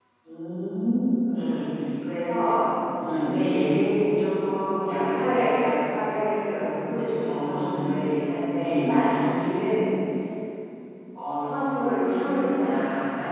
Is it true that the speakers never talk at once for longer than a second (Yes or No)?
Yes